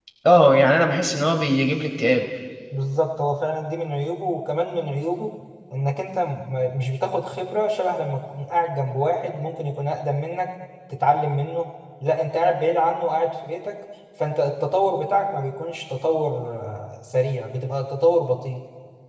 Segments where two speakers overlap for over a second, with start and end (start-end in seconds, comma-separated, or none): none